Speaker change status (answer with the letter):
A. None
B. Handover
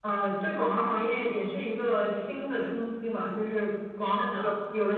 A